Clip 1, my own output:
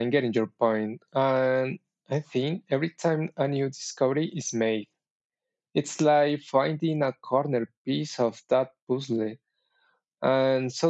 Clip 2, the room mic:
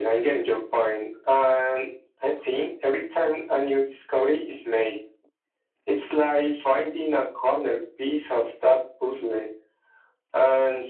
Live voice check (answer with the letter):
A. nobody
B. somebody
A